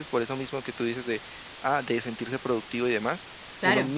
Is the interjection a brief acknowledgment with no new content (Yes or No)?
Yes